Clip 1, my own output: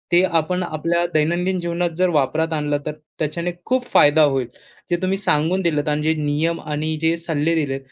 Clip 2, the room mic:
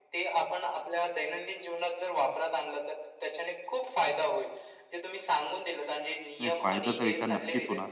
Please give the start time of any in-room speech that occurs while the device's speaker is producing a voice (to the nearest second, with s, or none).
6 s